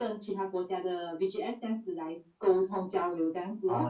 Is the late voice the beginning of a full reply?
Yes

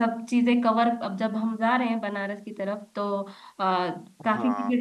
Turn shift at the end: No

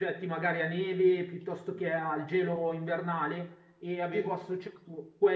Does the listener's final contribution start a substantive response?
No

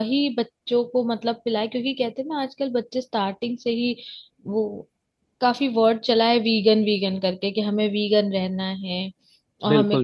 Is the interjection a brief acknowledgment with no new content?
Yes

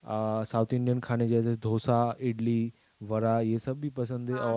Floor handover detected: No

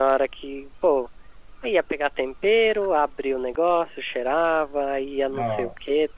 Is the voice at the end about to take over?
No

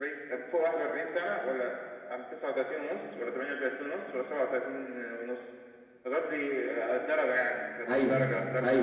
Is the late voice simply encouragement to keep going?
No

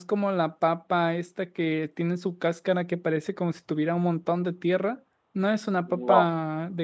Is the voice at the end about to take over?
No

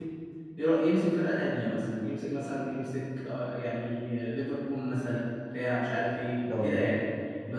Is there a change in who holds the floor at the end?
No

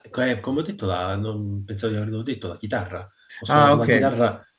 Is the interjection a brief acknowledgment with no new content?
Yes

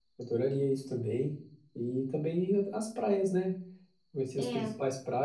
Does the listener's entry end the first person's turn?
No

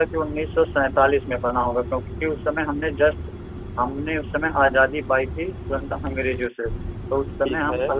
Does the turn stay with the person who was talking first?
Yes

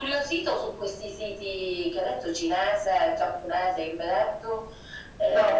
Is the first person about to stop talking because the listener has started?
Yes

